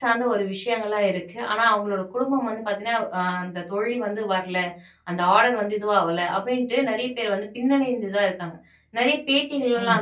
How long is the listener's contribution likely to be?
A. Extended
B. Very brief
B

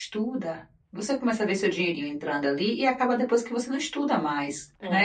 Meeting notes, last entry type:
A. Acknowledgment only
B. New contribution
B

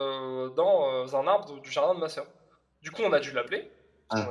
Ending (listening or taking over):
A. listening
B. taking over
A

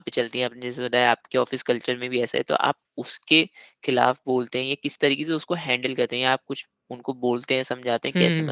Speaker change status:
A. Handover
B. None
A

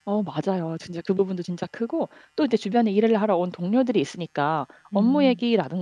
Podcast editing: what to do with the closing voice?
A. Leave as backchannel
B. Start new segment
A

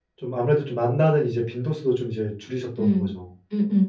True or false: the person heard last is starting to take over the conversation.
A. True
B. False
A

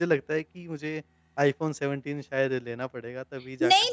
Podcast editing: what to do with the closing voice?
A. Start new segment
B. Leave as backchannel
A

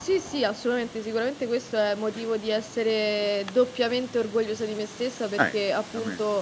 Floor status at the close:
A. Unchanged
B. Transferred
A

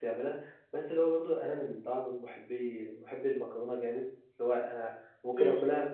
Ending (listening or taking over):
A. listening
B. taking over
A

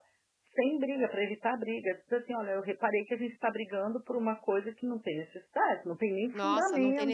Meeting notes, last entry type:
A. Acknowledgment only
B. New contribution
B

